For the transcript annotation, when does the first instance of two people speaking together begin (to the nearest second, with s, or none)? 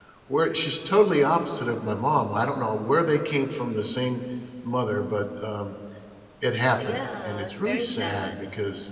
7 s